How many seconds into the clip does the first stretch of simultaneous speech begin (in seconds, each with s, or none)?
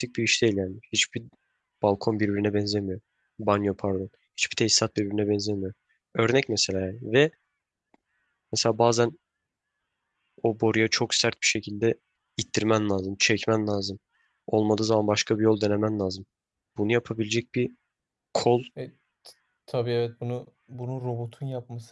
none